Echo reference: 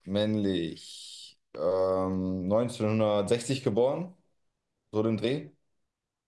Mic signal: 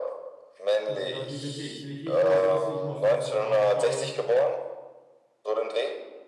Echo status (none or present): present